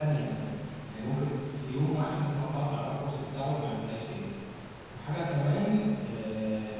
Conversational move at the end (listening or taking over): listening